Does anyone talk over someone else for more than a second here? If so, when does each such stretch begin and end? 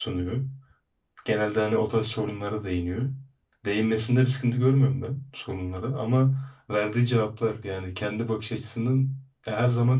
none

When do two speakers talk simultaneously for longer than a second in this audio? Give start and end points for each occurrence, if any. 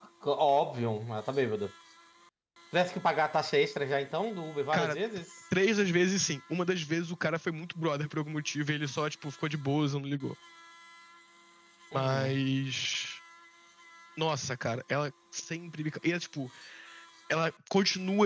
none

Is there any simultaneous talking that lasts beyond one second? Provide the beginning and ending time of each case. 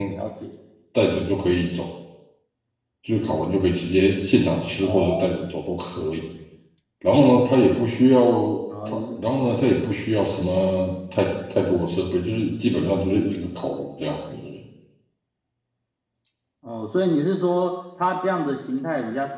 none

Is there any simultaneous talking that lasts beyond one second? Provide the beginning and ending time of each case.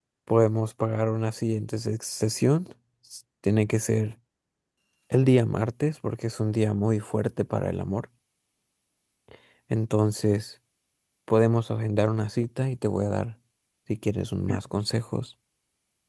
none

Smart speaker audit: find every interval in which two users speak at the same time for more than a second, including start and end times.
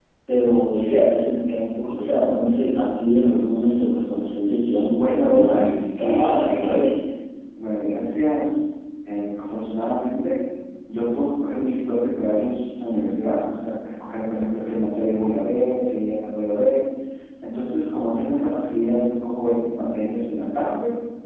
5.0-7.0

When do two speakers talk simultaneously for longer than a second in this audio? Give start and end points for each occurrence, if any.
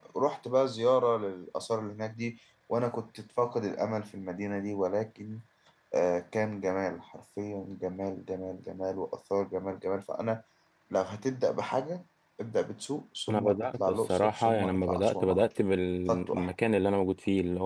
13.3-15.4

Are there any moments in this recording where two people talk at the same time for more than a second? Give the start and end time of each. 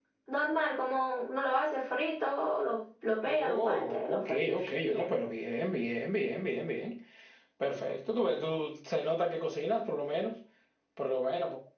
3.2-5.0

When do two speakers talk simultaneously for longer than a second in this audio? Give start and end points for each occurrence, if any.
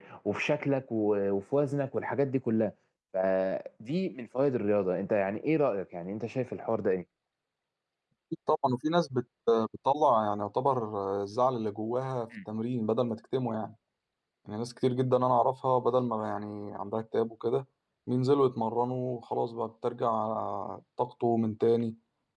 none

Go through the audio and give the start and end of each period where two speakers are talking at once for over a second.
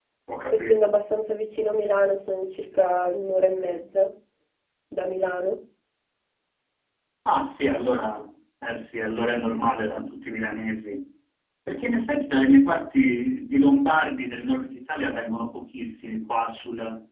none

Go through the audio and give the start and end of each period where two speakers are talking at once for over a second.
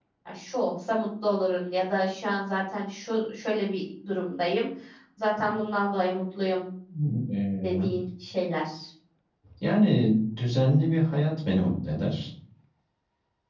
none

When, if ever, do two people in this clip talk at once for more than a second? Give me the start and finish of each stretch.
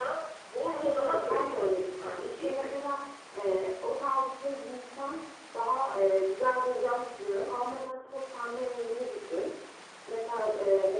0.7-2.8

